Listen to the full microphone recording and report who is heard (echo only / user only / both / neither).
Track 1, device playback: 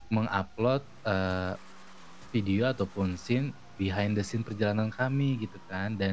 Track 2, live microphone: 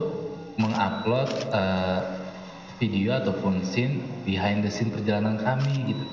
echo only